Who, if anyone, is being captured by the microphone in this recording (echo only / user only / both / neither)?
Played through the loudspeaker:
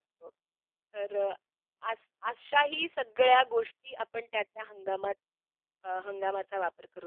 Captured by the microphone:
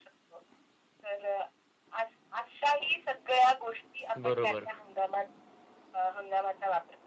both